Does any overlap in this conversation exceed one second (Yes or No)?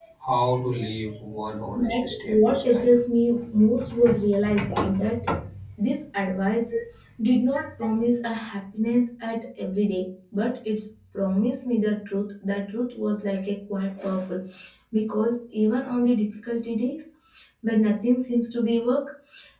Yes